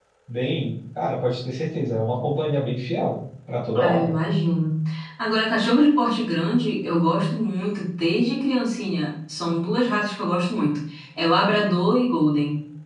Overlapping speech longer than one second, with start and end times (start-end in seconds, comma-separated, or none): none